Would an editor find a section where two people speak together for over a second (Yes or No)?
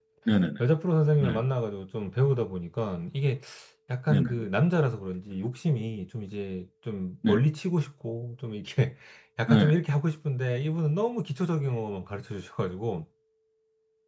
No